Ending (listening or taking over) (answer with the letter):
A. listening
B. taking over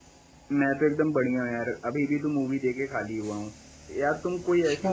A